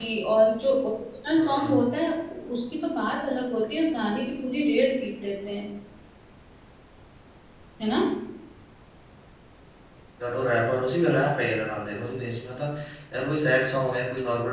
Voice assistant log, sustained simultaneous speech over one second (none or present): none